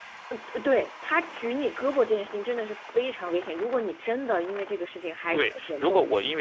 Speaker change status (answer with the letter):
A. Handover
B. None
A